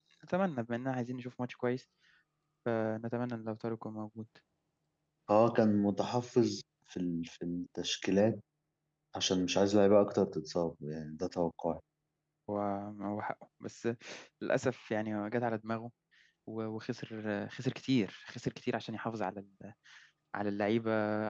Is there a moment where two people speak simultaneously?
No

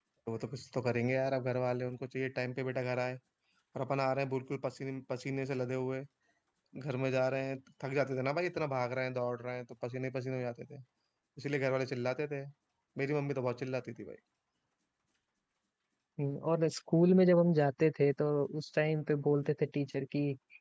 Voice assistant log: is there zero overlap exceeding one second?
Yes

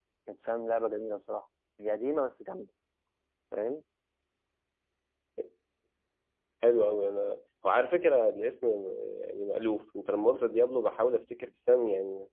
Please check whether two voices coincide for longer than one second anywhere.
No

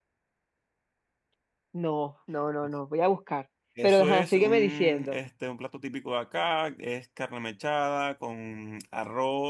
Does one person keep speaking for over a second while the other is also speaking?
Yes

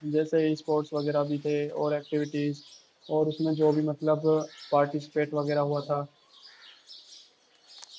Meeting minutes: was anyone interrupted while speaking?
No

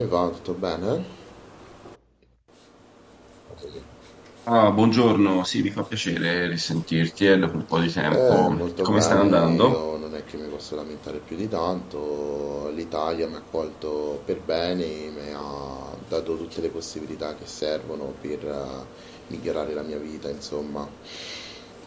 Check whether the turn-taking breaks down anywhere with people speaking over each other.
Yes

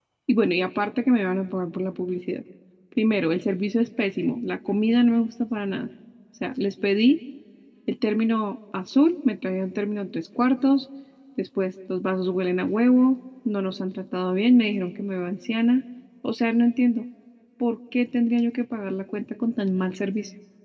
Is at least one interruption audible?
No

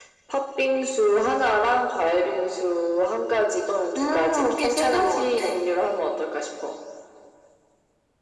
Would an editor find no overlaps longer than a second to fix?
No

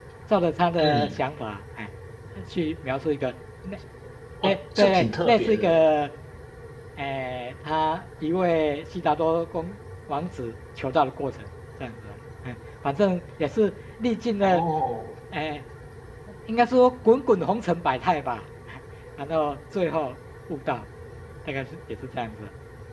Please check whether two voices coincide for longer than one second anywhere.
Yes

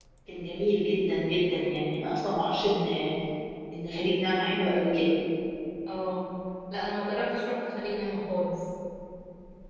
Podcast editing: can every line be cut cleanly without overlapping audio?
Yes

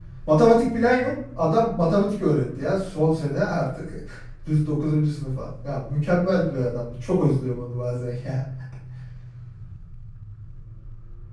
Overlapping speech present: No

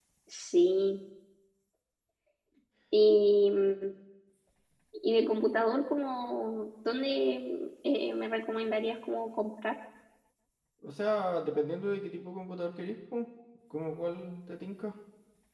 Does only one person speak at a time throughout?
Yes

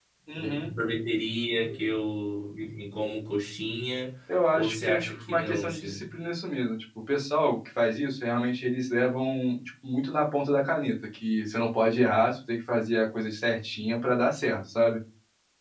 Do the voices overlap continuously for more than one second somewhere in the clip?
Yes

